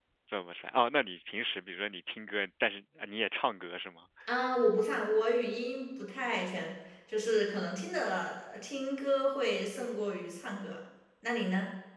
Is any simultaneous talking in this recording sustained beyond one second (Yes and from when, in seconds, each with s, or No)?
No